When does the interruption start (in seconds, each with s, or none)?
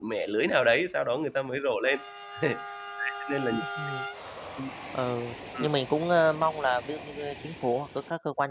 none